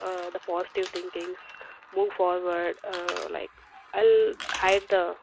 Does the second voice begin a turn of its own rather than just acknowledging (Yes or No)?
No